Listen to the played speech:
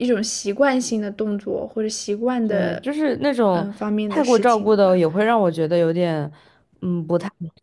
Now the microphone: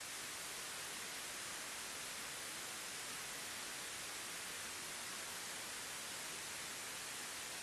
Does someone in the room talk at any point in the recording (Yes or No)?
No